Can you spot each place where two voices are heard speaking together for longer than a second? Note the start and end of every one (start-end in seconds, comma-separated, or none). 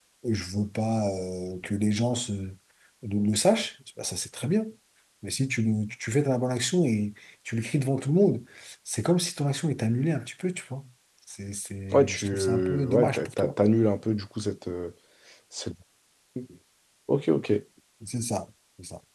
11.9-13.5